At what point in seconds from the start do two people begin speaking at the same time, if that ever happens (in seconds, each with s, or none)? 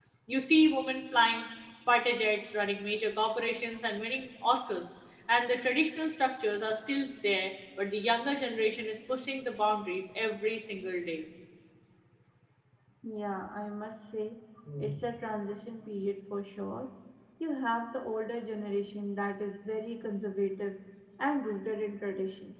none